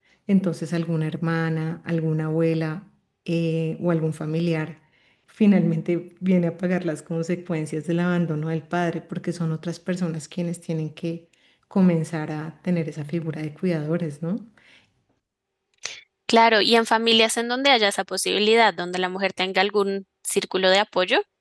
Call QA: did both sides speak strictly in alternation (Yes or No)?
Yes